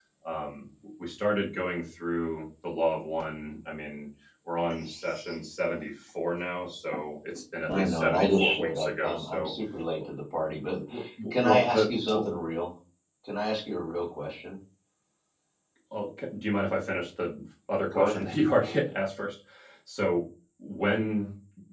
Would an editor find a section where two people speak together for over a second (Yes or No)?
Yes